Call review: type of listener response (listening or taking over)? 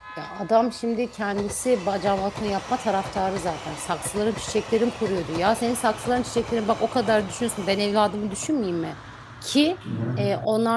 listening